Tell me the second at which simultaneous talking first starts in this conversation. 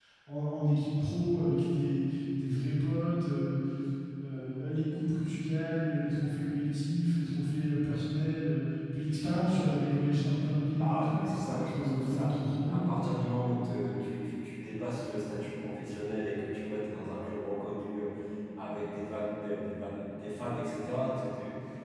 10.8 s

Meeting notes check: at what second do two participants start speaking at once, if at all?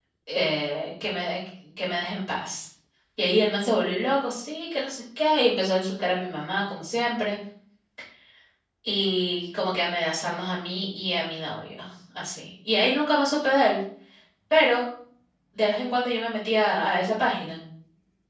none

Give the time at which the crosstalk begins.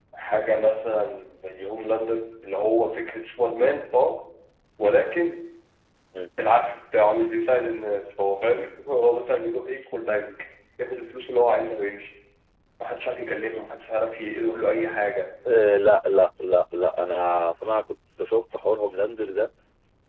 none

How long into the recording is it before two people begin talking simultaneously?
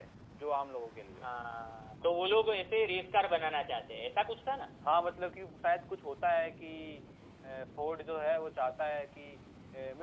none

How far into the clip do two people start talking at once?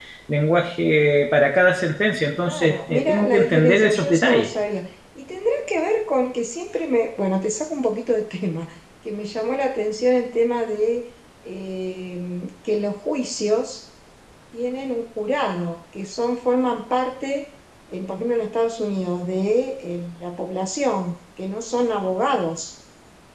2.4 s

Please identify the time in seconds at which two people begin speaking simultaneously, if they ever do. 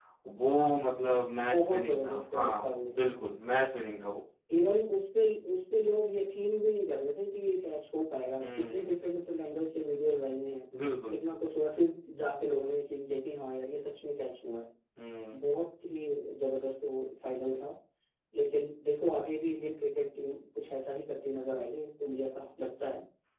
1.1 s

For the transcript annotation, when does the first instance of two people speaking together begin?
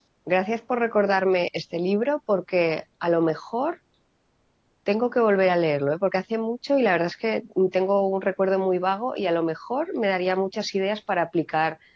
none

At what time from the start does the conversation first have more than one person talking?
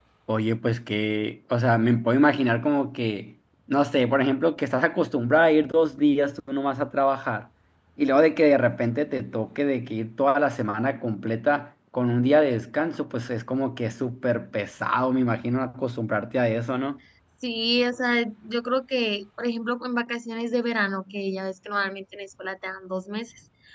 none

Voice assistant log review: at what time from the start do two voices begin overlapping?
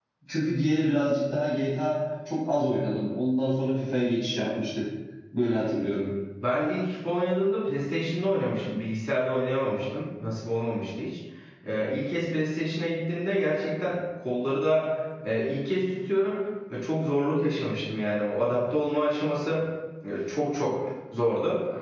none

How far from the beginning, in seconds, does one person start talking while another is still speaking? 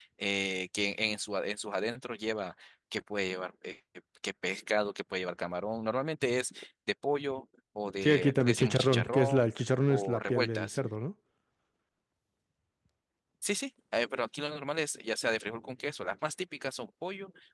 8.0 s

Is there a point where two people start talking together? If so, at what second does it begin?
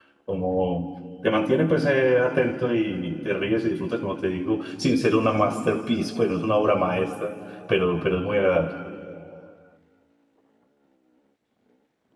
none

